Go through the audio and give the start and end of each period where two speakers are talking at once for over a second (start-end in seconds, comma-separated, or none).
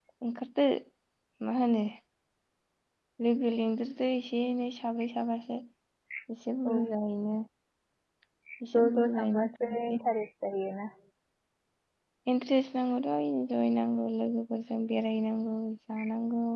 8.7-10.0